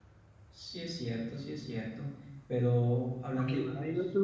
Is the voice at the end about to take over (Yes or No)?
Yes